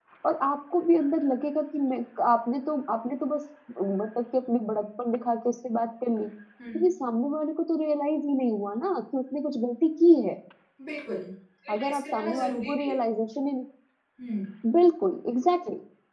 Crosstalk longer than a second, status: present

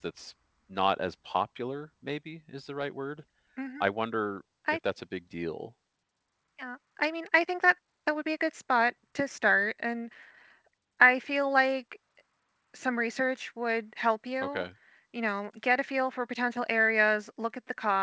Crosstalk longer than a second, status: none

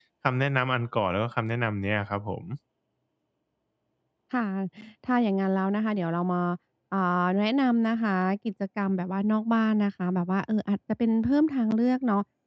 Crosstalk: none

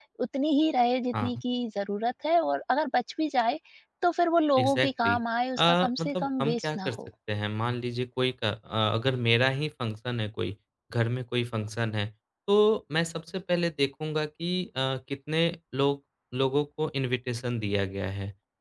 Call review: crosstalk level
present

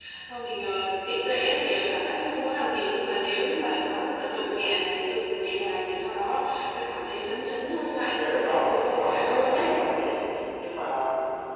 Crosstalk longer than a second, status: present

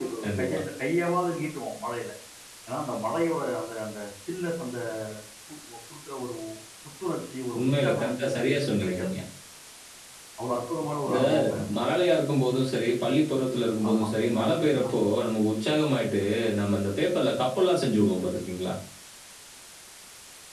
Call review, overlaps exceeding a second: present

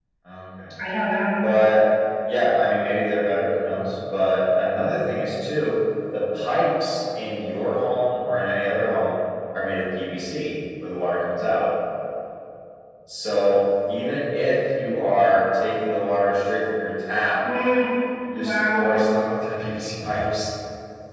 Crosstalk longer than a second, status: none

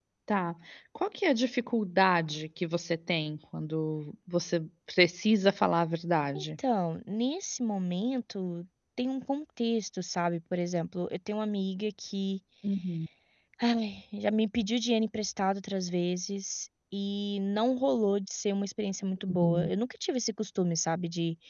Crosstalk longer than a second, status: none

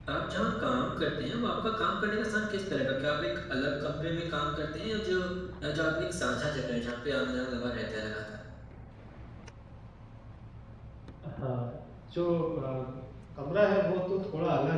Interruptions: none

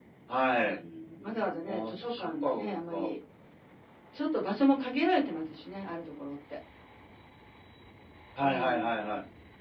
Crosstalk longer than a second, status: present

